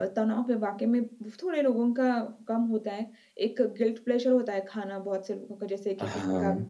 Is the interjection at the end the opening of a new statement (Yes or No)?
No